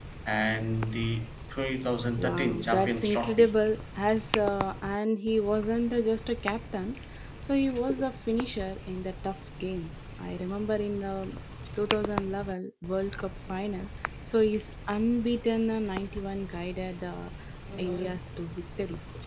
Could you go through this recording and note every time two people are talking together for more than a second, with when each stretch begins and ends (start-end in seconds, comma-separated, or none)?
2.2-3.5